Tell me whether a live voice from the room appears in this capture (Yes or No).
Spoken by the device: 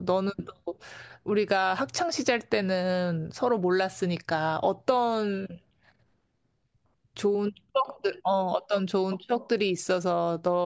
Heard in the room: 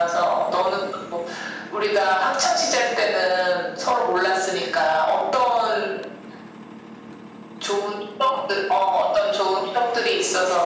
No